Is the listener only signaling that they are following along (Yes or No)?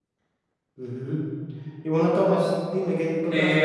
Yes